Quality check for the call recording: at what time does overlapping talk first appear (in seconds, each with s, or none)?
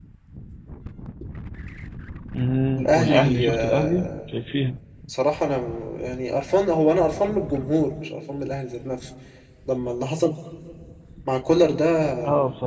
2.8 s